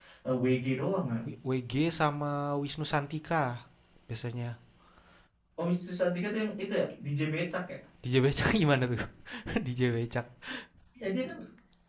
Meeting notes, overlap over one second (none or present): none